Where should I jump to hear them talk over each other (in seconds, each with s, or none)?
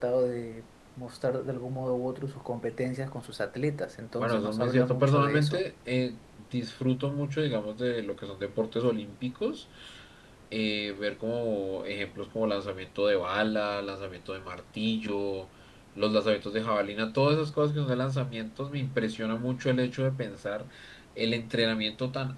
4.2 s